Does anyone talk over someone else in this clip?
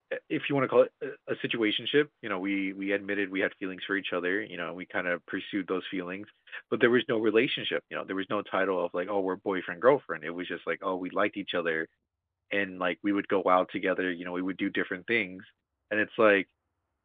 No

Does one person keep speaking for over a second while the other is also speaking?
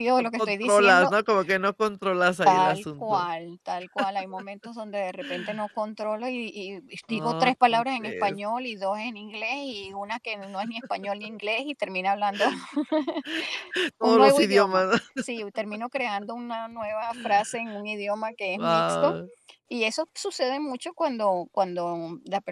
Yes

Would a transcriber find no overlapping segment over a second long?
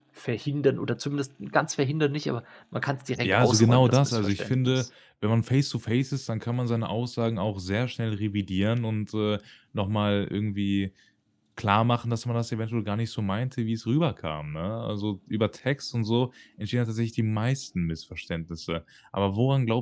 No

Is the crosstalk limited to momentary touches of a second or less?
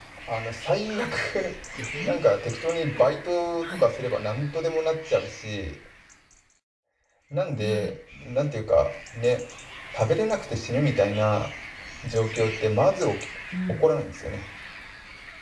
Yes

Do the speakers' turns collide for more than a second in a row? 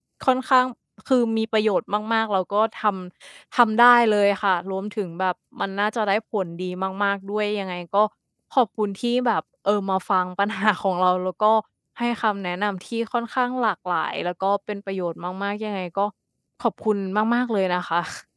No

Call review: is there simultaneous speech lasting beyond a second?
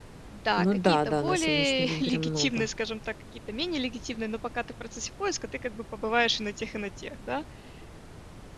Yes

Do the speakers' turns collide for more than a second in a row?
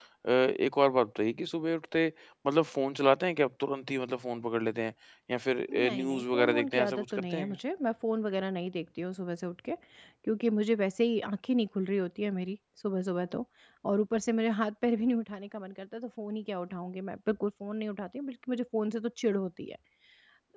Yes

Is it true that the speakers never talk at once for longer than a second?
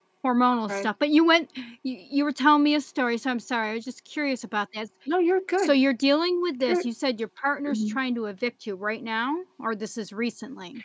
Yes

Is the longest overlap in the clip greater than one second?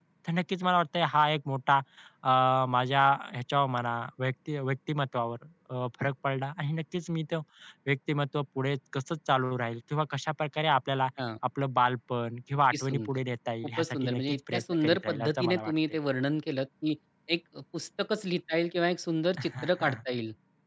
Yes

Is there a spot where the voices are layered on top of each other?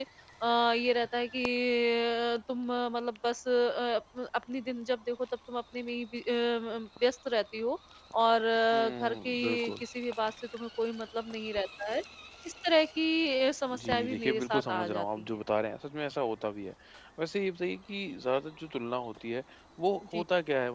Yes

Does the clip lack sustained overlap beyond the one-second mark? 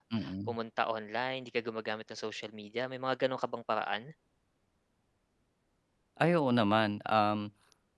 Yes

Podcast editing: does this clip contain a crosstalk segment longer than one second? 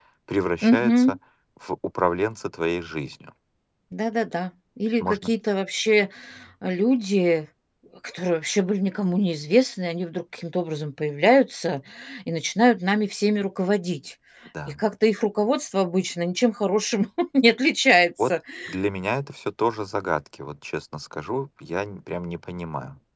No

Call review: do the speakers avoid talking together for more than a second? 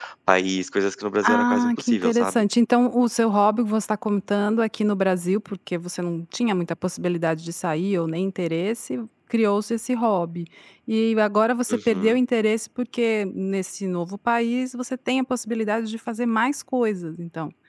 No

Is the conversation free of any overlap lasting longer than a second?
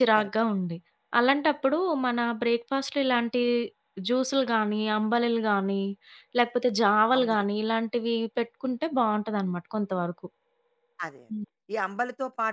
Yes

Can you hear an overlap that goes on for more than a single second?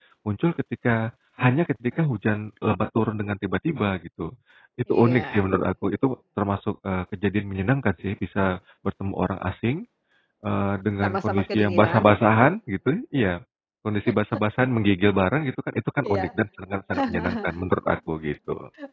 Yes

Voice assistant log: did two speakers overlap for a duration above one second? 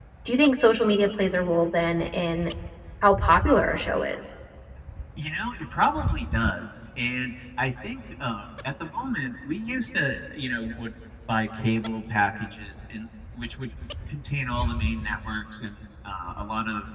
No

